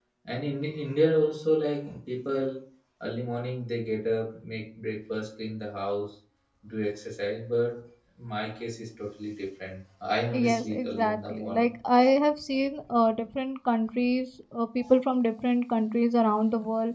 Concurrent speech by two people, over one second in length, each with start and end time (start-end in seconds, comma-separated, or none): 10.5-11.7